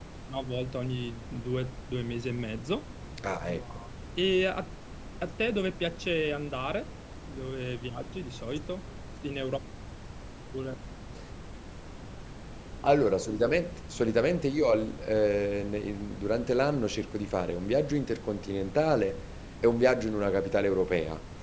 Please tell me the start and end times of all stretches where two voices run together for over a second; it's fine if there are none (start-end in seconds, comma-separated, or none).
none